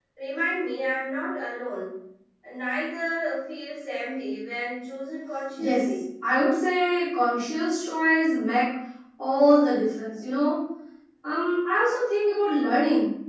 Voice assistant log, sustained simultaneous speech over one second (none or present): none